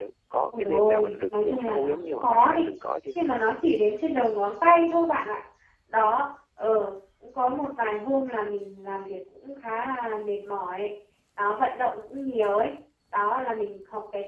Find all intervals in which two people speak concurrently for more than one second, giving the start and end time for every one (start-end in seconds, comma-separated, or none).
0.6-2.7